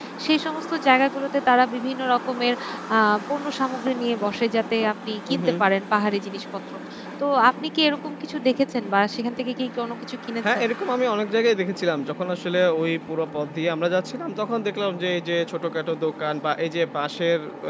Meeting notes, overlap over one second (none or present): none